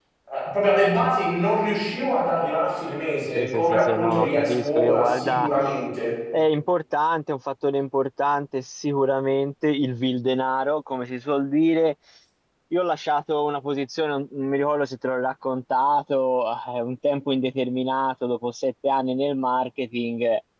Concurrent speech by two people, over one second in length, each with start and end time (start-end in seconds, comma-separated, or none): 3.4-5.5